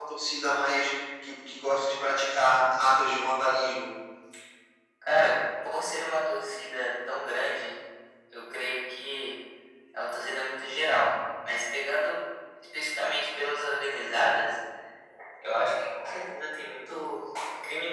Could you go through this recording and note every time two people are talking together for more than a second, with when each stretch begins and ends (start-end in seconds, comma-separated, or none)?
none